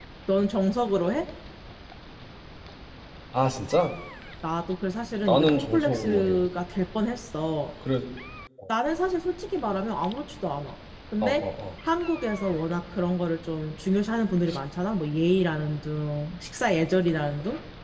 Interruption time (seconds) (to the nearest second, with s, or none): 5 s